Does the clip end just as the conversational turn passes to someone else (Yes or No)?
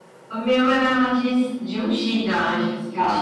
Yes